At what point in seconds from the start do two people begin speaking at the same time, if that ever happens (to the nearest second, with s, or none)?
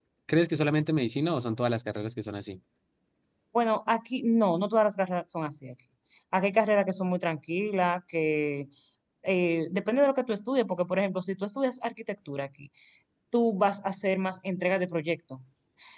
none